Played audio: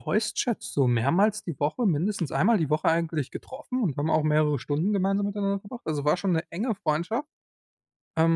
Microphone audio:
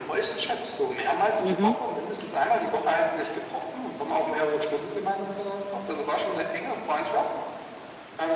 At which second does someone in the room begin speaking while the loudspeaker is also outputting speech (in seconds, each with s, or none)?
1.4 s